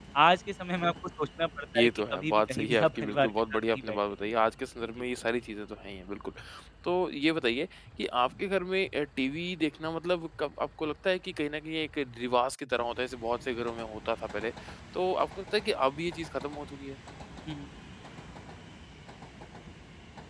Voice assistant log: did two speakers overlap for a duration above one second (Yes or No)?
Yes